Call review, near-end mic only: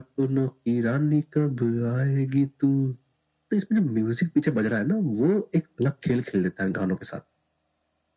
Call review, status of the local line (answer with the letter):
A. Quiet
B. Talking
A